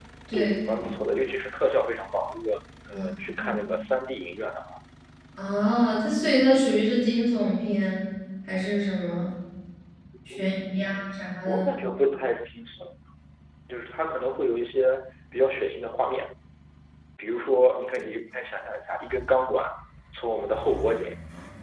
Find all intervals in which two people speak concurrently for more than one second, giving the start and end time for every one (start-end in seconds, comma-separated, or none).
10.3-11.7